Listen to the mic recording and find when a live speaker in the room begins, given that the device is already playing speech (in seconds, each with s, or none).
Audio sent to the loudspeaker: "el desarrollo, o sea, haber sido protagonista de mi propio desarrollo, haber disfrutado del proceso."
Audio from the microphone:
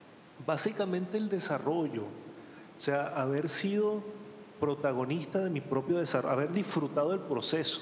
none